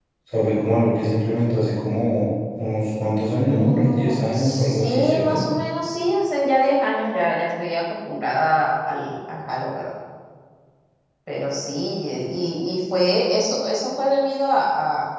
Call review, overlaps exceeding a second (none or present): present